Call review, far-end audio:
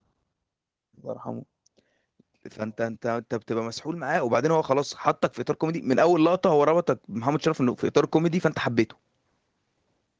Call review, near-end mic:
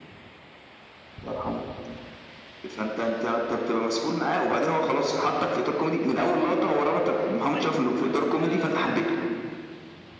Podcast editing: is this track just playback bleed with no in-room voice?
No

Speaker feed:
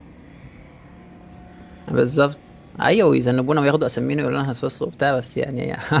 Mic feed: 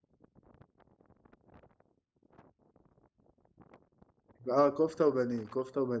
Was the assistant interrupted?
Yes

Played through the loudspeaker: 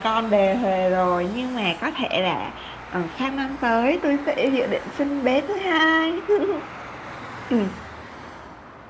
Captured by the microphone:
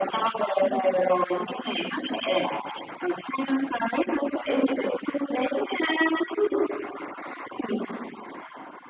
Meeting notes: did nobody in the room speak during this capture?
Yes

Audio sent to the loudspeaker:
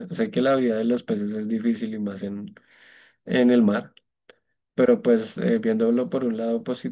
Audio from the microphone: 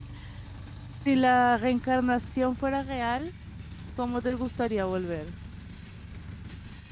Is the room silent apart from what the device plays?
No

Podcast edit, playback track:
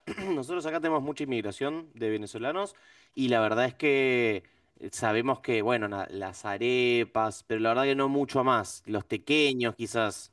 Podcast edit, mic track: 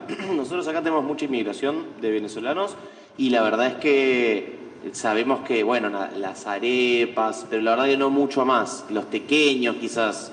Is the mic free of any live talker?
Yes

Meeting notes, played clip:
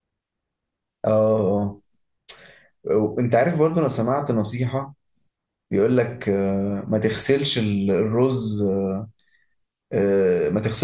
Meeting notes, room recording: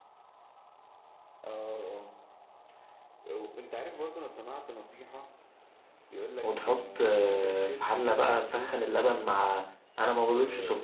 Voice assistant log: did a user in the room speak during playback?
Yes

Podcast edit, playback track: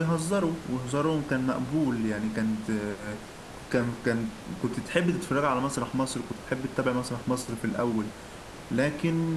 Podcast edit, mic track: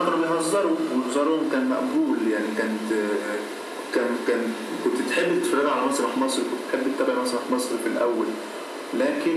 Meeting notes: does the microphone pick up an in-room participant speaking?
No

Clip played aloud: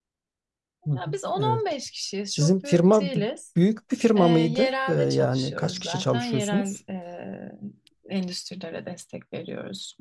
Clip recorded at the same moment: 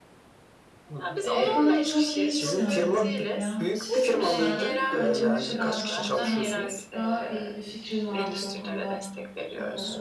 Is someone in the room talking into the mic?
Yes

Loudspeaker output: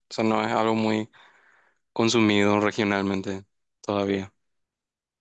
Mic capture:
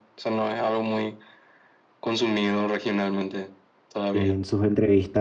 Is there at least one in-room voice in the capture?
Yes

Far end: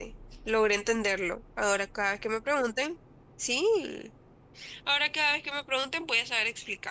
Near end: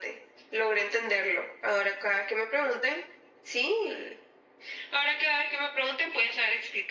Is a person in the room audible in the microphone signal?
No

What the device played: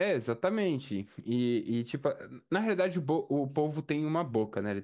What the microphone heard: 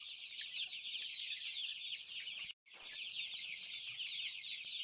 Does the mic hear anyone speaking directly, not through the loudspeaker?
No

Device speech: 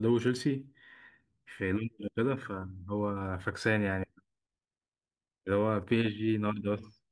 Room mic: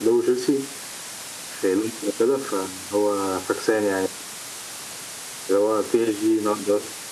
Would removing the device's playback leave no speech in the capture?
Yes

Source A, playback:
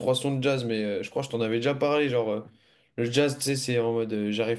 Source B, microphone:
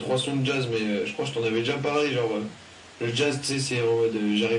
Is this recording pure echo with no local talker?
Yes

